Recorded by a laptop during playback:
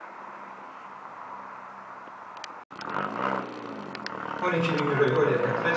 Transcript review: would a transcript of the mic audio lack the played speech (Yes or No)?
Yes